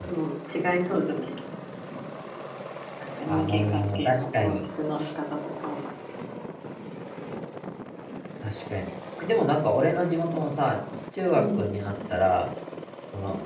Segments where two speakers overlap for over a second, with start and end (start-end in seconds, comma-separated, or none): 3.3-4.5